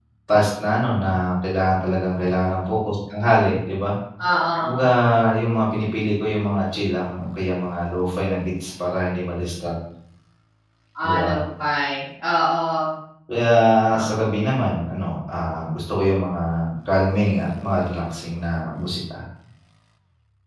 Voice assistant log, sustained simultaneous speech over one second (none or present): none